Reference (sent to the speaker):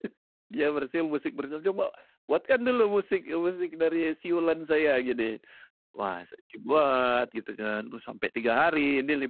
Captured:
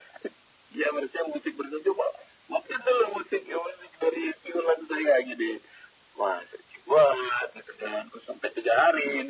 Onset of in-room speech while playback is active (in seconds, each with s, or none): none